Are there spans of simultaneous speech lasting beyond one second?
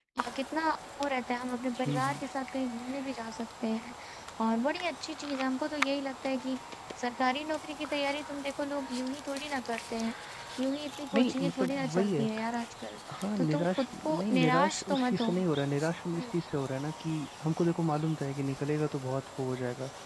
Yes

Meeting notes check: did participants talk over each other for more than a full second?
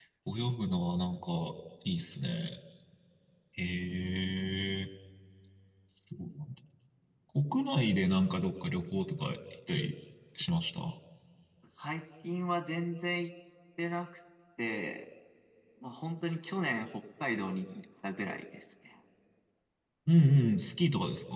No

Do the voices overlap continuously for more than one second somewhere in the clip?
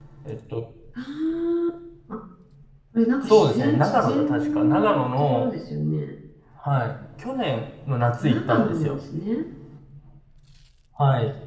Yes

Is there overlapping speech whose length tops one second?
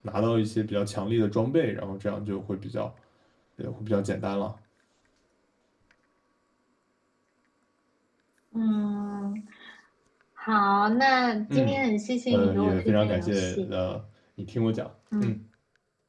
Yes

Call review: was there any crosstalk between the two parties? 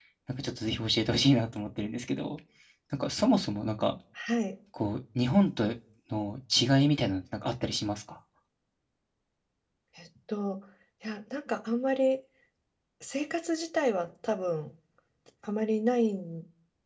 No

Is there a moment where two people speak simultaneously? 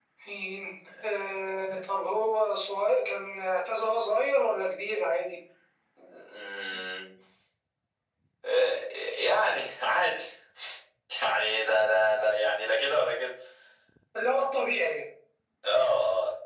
No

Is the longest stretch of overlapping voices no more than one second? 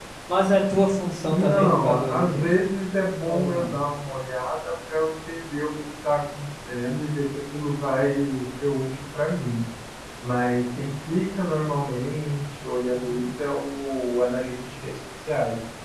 No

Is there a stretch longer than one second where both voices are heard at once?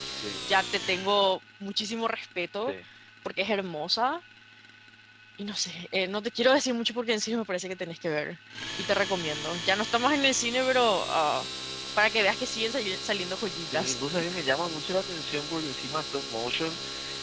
No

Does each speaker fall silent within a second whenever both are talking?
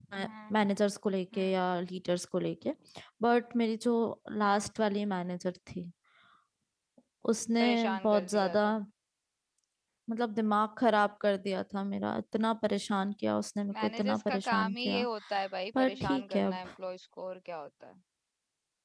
No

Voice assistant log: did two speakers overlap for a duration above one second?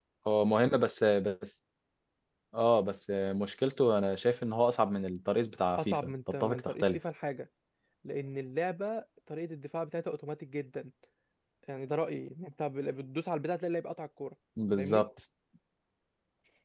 Yes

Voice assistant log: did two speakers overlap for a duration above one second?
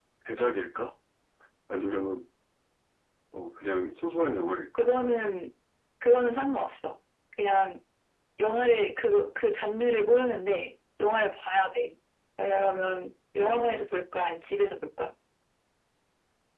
No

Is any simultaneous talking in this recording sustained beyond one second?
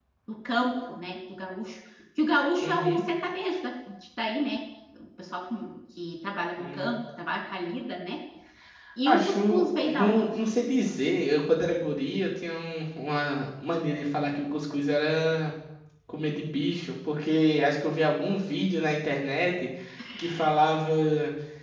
Yes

